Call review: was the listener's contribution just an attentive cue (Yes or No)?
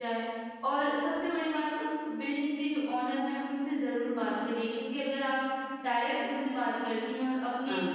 Yes